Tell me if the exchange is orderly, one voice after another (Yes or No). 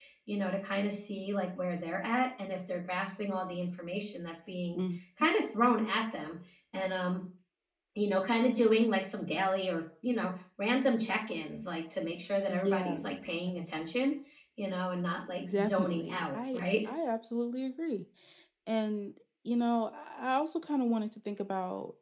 No